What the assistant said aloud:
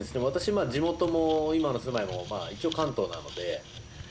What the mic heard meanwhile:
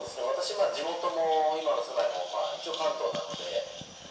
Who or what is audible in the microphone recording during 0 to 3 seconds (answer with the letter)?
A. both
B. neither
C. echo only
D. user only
C